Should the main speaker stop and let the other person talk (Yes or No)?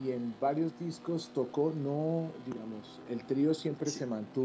No